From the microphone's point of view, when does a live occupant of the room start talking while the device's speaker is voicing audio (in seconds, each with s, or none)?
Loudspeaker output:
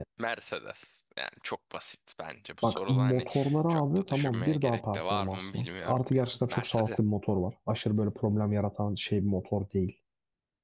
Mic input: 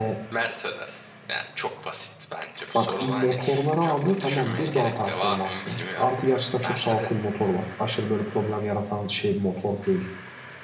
none